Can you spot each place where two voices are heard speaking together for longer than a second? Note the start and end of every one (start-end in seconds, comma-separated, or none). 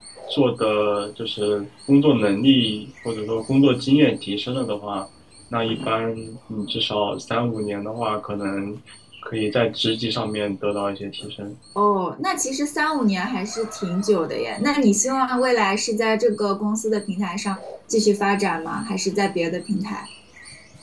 none